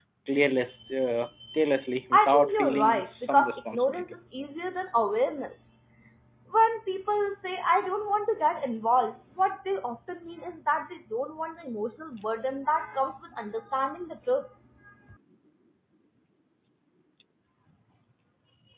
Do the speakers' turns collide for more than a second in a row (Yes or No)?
Yes